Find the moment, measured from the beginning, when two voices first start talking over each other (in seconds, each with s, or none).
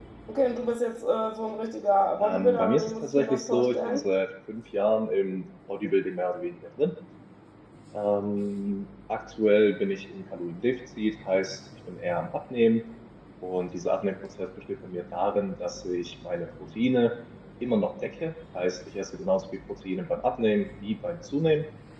2.2 s